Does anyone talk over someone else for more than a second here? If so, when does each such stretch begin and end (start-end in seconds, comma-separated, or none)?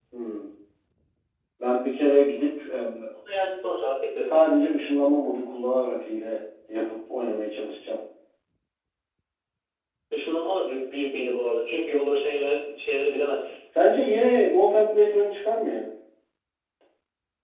none